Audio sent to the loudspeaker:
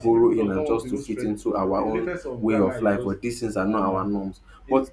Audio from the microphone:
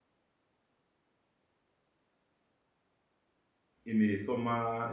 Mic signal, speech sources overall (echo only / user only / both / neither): user only